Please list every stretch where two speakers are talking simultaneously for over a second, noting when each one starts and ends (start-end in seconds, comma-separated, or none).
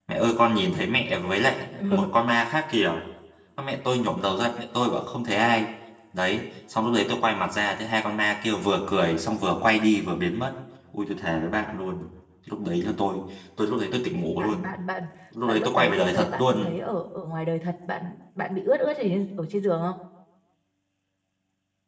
15.4-16.7